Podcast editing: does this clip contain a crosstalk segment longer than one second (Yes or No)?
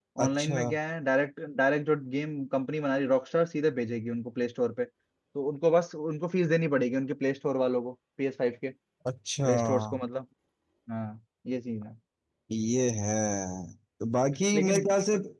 No